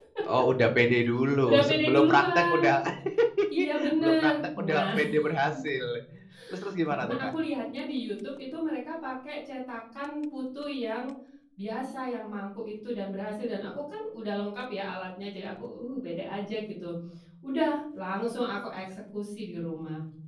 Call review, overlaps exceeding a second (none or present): present